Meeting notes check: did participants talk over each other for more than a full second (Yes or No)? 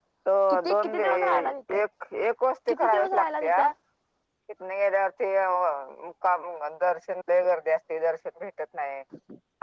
Yes